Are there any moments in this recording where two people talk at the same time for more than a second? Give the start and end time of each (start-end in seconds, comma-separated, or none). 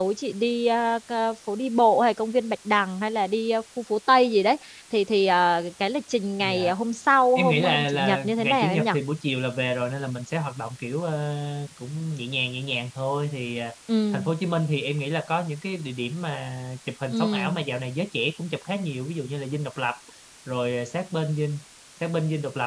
7.3-8.9